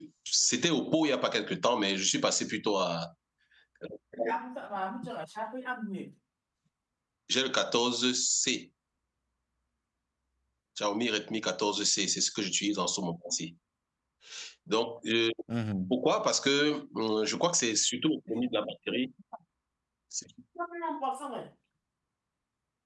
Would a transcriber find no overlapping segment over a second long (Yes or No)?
Yes